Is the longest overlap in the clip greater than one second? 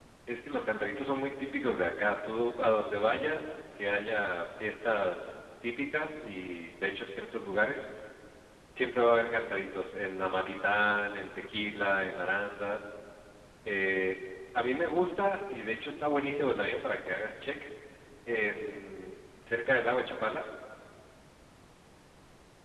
No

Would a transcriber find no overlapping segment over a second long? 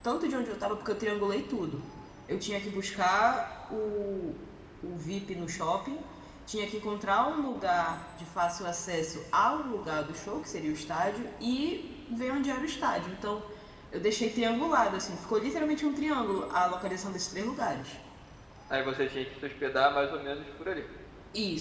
Yes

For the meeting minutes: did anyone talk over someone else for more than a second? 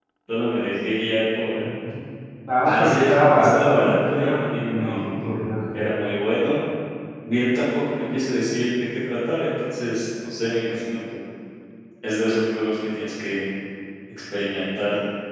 Yes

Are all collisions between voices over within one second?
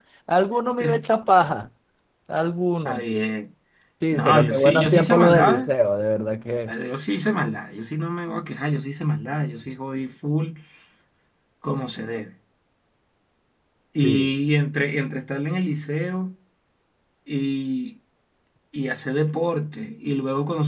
No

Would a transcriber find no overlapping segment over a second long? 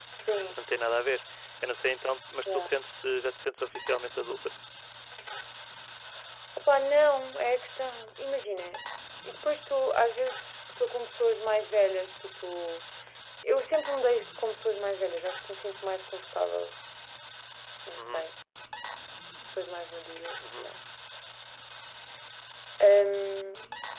Yes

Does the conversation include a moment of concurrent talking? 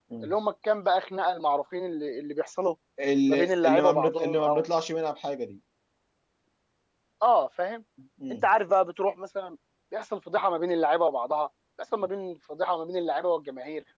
Yes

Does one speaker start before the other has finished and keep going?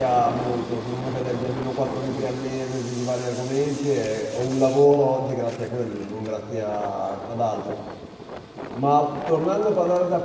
No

